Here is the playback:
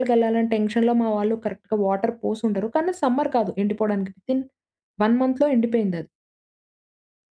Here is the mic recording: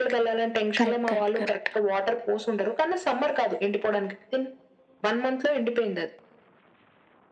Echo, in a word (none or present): present